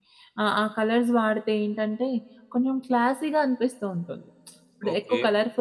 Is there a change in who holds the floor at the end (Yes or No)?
No